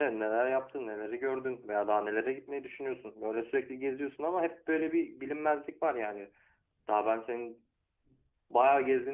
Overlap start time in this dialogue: none

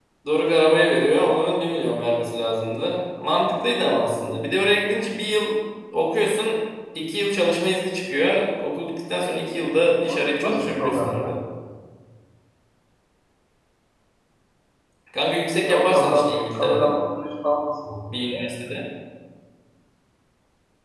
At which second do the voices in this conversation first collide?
10 s

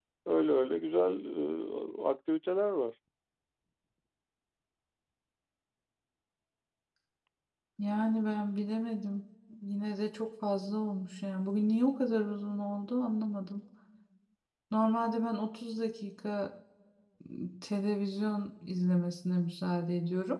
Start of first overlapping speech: none

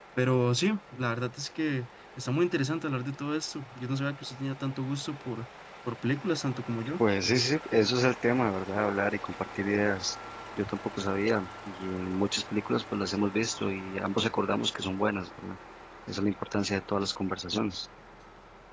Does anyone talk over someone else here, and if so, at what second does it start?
none

